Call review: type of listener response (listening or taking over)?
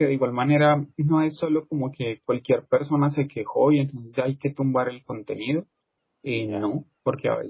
listening